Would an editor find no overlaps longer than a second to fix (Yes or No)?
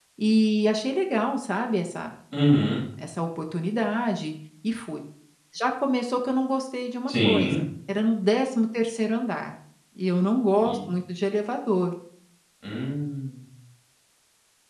Yes